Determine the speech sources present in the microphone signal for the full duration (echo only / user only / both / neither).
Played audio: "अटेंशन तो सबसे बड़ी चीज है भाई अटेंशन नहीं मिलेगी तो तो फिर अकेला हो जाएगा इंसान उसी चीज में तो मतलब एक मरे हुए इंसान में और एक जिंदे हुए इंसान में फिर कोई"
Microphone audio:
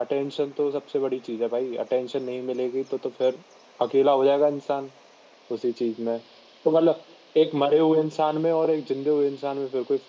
echo only